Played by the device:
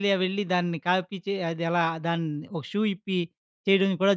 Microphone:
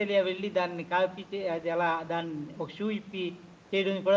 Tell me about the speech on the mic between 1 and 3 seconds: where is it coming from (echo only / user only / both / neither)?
echo only